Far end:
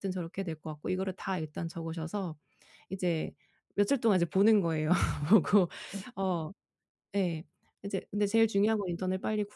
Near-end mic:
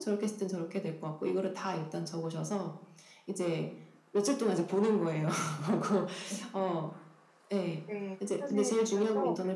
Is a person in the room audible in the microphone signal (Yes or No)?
Yes